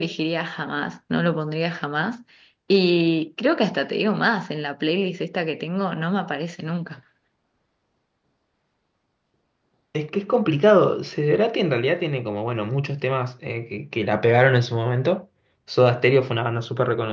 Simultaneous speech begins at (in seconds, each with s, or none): none